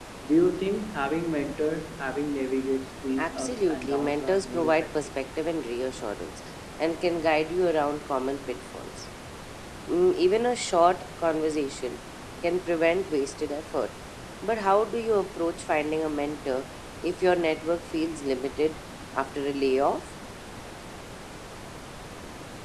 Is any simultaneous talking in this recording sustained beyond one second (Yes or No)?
Yes